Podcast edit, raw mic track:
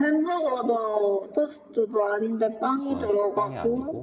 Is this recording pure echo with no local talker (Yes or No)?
No